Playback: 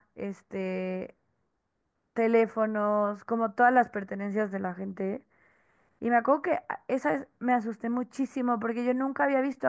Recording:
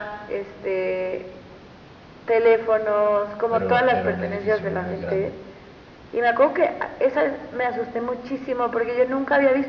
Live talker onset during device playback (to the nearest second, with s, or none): 3 s